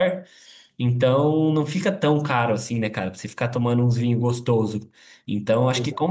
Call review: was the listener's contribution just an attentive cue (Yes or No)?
Yes